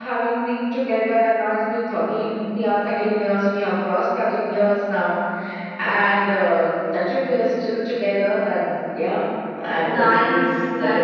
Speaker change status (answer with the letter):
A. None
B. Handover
B